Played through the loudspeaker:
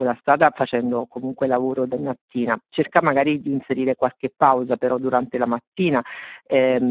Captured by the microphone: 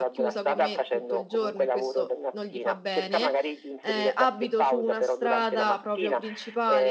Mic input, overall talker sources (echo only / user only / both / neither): both